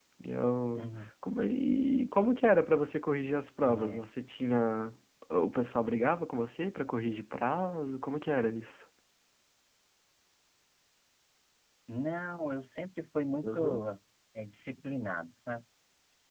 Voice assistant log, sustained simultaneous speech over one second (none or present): none